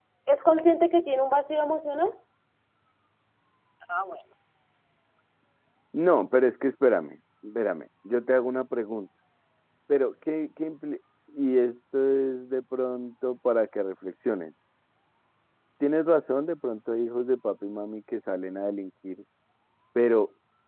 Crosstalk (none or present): none